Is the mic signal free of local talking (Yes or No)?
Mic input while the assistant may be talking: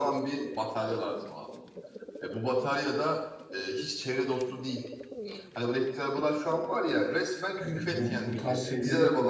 No